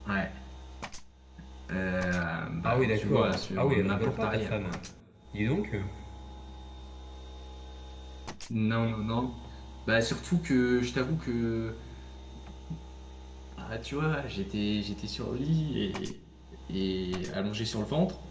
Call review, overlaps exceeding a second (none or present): present